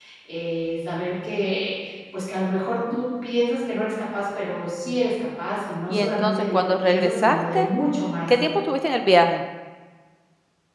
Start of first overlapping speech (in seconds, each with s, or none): 5.9 s